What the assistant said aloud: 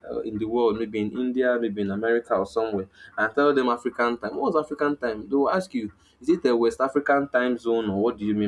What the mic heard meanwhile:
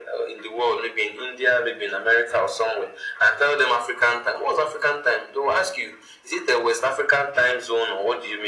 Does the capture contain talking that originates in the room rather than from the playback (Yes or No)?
No